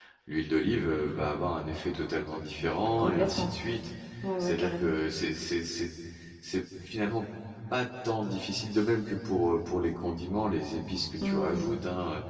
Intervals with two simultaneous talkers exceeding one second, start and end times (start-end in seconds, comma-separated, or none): none